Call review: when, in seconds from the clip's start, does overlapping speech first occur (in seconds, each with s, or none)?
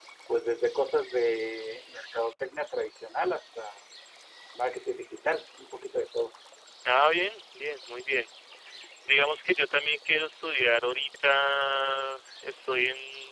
none